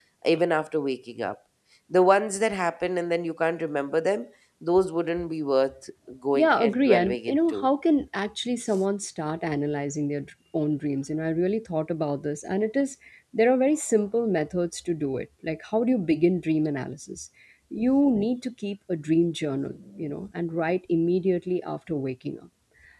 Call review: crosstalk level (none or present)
present